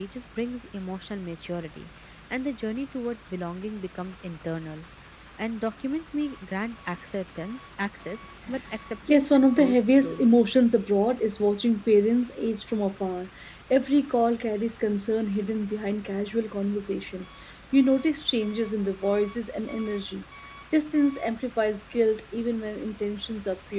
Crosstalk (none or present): present